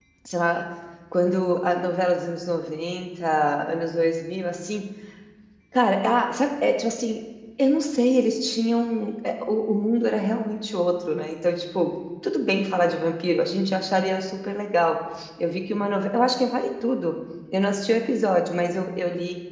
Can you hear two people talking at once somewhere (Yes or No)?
No